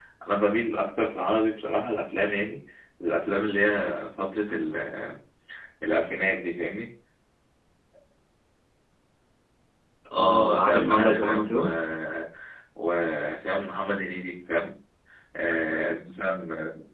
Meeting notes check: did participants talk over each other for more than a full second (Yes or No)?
Yes